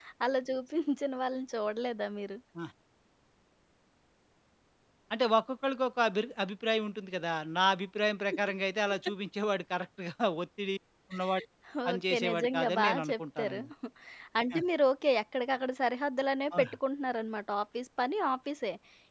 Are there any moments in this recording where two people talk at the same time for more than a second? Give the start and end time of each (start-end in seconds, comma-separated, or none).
11.9-13.6